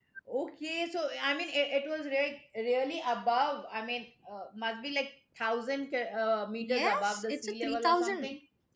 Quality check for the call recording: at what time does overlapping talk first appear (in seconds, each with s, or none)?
6.6 s